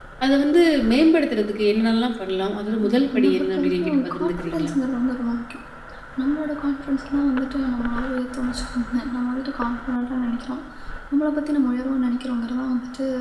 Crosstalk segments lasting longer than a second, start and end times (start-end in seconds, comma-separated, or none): 2.8-4.7